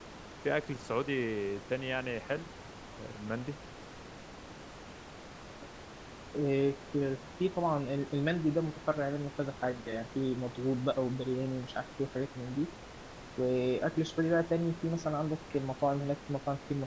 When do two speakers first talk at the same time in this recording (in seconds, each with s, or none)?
none